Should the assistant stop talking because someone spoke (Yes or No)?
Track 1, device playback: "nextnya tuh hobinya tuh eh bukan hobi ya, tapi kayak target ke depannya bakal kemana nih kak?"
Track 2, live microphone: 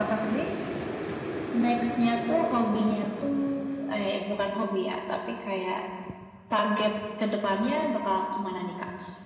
No